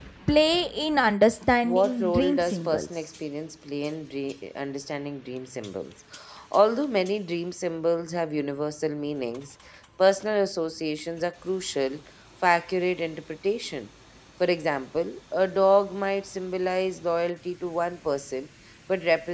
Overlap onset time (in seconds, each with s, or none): 1.6 s